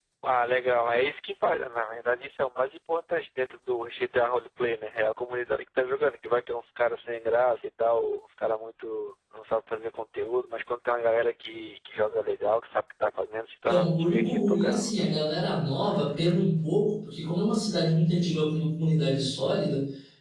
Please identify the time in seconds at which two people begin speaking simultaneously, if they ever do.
13.7 s

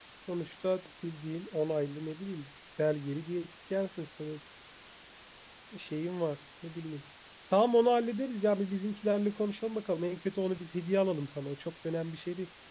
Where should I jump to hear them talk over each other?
none

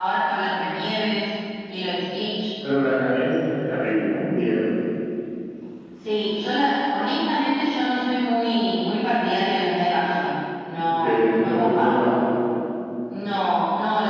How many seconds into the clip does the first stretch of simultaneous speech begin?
11.0 s

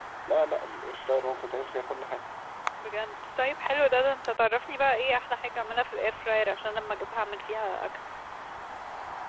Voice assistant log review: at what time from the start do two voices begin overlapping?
none

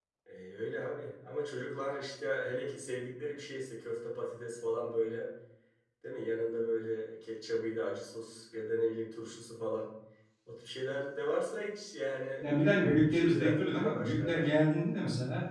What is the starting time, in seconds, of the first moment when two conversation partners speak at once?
12.4 s

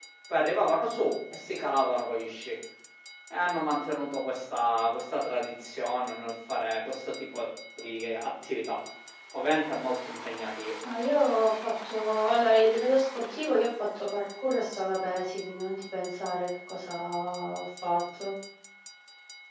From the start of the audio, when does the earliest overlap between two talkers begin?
none

